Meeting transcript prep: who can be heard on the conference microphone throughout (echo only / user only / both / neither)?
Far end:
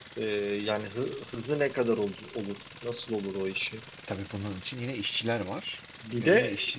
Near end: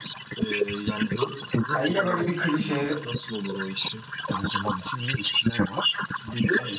both